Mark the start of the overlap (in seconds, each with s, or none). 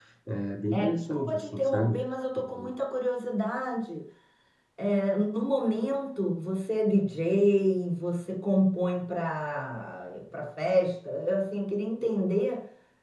0.7 s